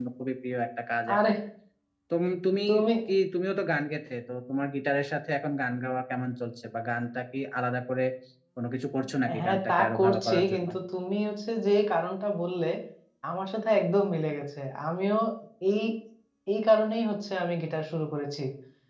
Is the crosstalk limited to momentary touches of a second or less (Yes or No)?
No